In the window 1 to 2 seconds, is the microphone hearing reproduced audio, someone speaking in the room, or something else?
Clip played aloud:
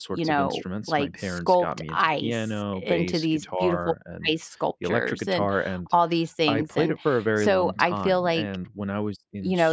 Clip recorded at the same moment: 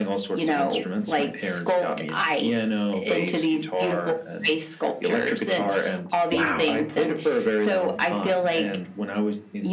echo only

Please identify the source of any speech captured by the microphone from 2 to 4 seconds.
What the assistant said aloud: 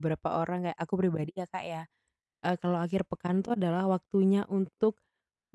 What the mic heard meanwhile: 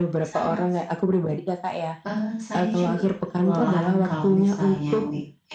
both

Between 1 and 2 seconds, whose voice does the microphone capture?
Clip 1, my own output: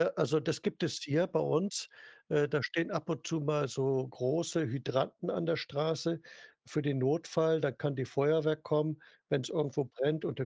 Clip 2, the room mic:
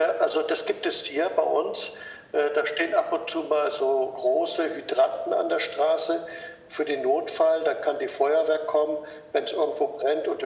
echo only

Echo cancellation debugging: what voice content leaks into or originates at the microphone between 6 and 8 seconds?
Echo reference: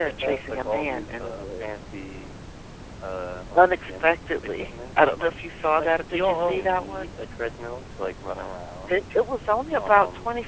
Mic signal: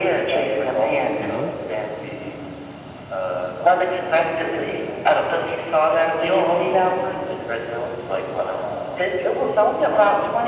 echo only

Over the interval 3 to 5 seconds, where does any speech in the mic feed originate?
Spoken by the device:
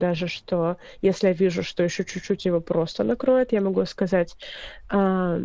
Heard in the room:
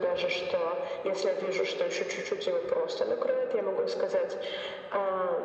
echo only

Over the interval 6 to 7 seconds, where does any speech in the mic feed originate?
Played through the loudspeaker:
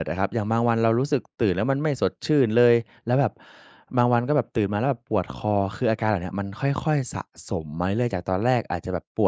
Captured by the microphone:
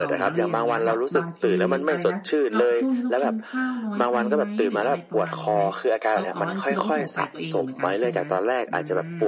both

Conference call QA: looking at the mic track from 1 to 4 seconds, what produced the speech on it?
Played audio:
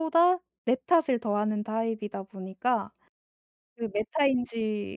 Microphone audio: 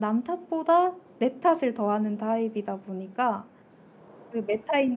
echo only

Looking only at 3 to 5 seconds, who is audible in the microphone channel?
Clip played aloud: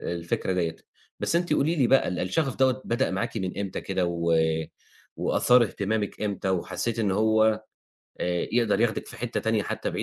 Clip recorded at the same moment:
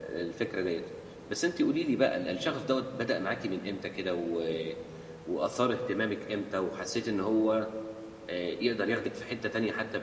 echo only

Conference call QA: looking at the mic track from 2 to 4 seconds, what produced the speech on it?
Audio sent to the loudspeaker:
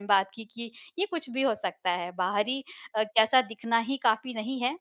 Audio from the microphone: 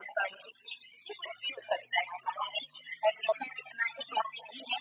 echo only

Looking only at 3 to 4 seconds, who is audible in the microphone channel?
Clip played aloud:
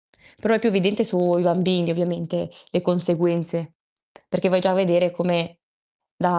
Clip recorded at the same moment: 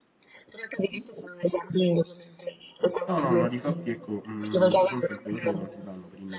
both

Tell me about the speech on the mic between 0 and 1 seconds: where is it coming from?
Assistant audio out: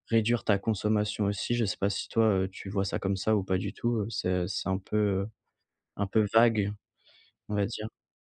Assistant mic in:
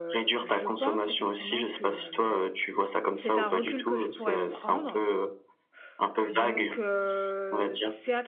both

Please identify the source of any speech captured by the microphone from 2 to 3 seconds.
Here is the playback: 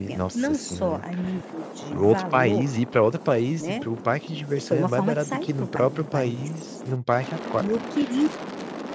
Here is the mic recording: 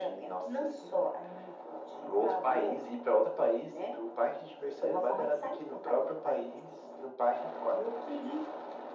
echo only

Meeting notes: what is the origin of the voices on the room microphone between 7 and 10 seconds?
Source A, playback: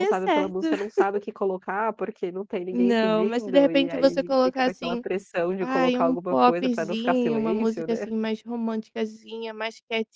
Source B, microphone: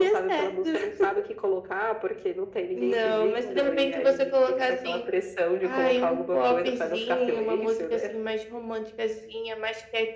echo only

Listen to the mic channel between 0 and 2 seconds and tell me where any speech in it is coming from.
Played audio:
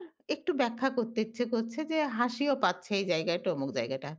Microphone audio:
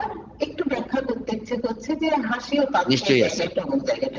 echo only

